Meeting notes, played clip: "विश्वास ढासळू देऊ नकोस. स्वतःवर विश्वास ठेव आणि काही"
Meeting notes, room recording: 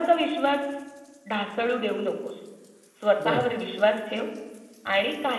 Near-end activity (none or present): present